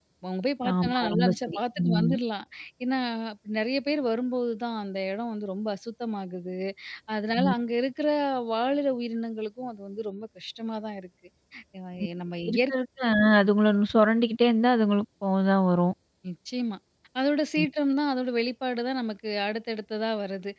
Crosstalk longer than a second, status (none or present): present